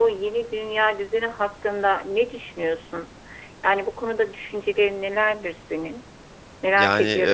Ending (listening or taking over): taking over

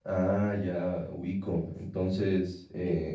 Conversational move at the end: listening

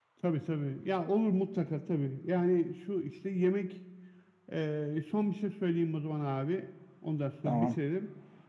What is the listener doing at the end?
listening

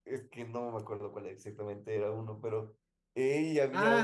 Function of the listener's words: taking over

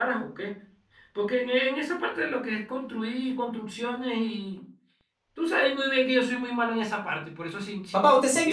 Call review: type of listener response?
taking over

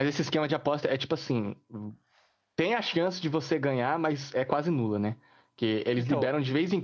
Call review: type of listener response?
listening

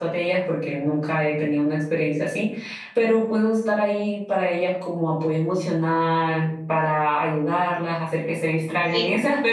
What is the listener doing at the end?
listening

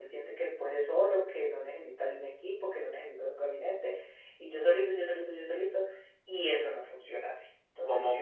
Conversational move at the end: taking over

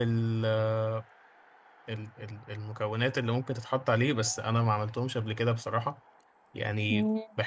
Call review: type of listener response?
listening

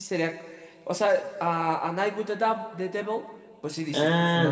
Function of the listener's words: taking over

